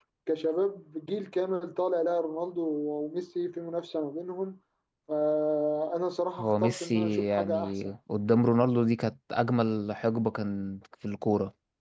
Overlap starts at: 6.4 s

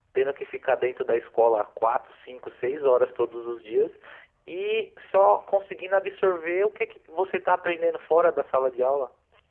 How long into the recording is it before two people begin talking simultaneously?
none

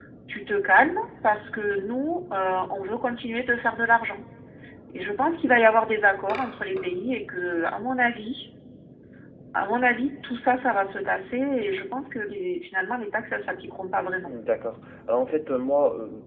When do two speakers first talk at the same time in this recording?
none

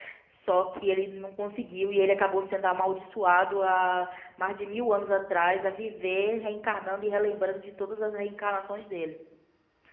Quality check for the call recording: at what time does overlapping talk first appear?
none

